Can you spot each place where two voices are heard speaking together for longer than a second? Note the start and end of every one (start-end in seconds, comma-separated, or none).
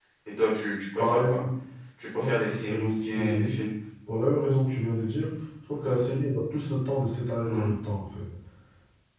2.2-3.6